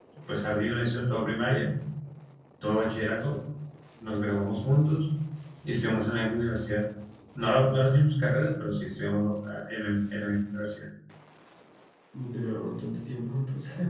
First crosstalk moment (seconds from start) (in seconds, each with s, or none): none